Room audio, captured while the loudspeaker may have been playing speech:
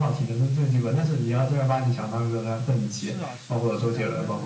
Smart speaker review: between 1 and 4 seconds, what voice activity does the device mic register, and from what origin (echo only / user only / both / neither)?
both